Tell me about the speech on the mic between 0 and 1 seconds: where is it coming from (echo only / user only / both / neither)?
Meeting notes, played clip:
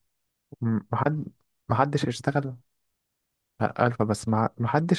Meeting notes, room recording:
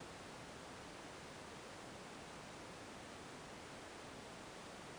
neither